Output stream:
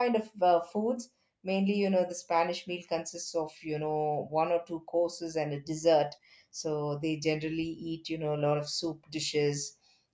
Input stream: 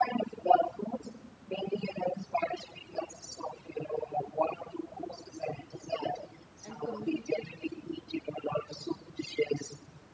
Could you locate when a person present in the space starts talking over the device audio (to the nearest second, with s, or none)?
7 s